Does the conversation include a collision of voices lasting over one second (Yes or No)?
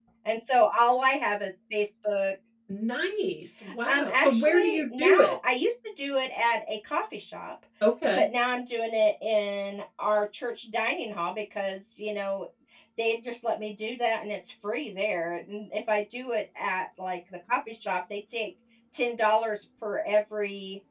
Yes